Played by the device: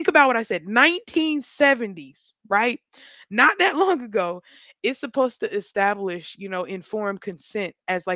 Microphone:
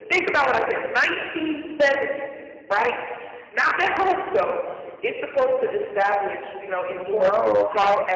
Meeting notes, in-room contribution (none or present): present